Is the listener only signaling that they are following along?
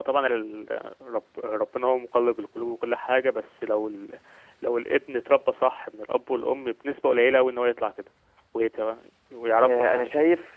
No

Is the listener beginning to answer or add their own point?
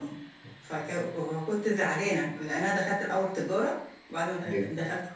No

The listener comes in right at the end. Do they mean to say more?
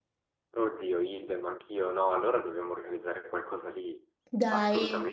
Yes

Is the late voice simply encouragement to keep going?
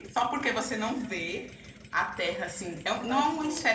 Yes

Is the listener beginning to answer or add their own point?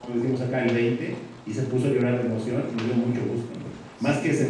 No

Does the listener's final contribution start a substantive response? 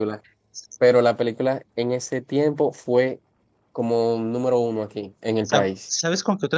Yes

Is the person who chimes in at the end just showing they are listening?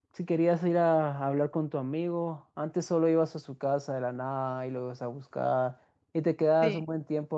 Yes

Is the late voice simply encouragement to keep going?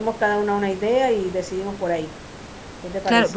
No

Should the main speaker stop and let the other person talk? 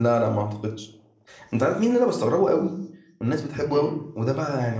No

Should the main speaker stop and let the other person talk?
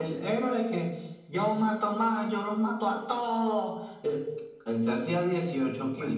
No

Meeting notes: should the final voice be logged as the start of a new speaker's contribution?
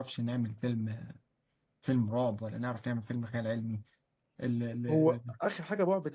Yes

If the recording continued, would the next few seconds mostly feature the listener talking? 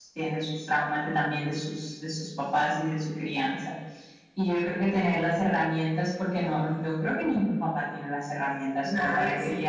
No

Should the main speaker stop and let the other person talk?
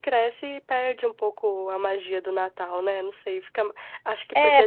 Yes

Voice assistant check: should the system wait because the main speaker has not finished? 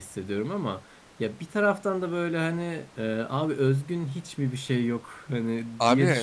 No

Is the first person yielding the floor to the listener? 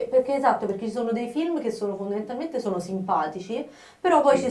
No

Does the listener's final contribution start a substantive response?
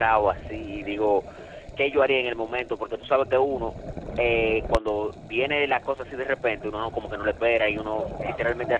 No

